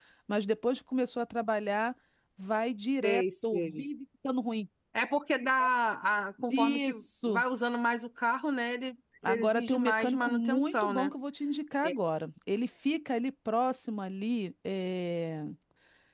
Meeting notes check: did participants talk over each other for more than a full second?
Yes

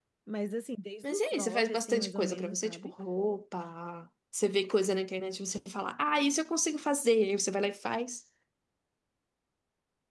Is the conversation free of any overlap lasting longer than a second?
No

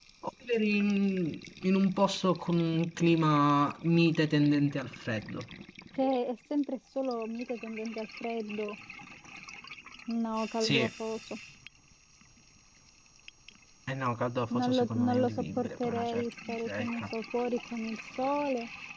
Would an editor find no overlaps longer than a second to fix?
No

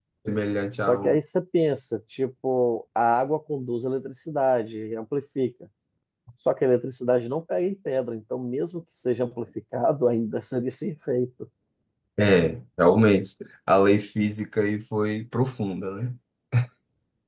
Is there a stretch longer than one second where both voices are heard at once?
No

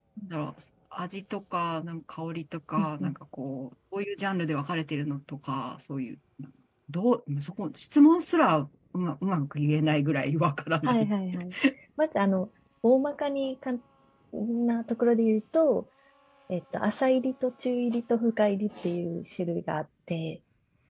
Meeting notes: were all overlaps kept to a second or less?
Yes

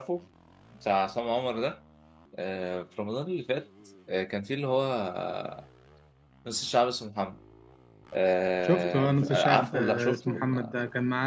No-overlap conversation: No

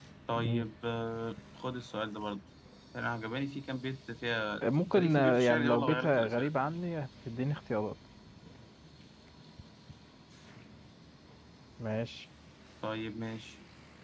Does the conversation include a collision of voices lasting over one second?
Yes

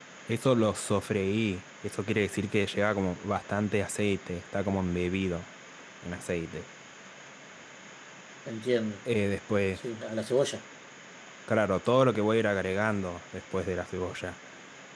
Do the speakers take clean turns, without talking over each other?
Yes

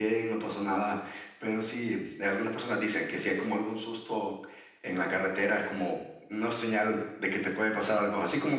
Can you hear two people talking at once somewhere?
No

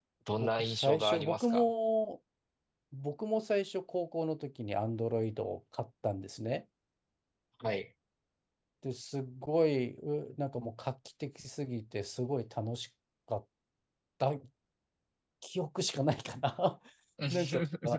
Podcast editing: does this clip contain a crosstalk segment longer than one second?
Yes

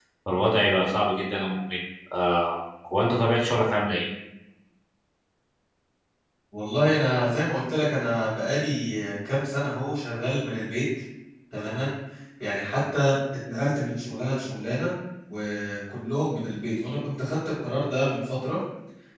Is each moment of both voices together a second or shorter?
Yes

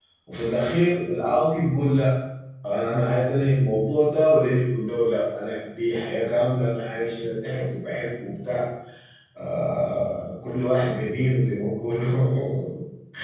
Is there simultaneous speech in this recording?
No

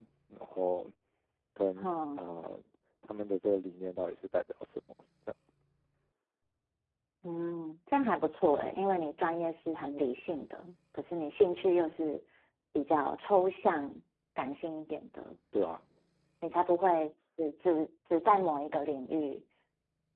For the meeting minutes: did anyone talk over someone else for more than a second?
No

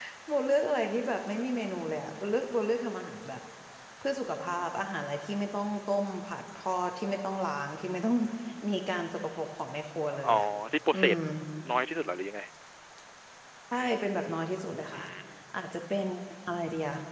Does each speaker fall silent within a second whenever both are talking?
Yes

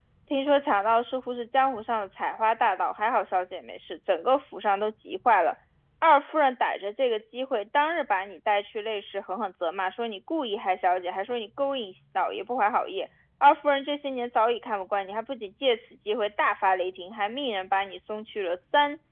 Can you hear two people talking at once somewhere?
No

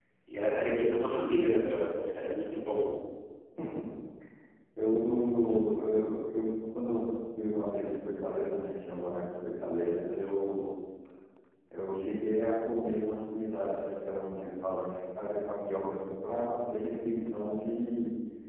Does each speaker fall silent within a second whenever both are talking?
Yes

